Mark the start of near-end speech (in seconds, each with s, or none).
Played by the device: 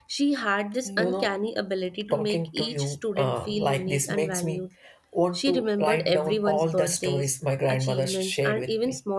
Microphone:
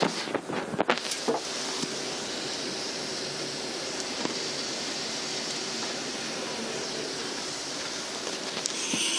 none